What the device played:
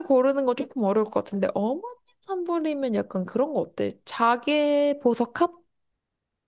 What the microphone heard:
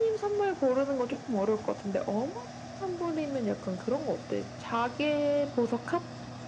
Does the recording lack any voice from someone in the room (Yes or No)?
Yes